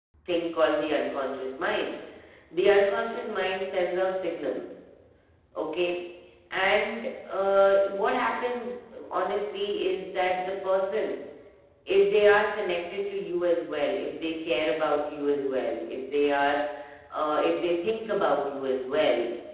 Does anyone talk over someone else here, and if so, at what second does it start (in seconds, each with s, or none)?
none